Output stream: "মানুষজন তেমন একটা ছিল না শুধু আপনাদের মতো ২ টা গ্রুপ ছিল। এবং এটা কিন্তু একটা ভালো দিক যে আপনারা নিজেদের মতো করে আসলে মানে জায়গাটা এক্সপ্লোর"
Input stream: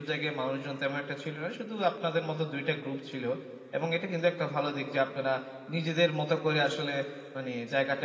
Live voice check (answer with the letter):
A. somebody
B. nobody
B